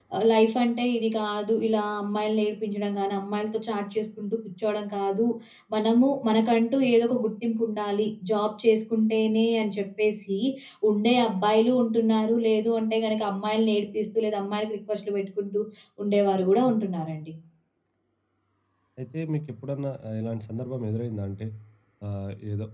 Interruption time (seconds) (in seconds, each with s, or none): none